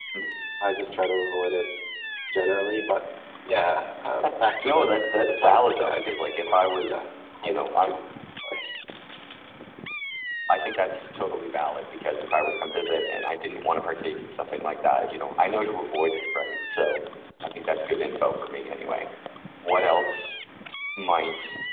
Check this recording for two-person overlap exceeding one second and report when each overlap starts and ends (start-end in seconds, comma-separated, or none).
4.6-7.0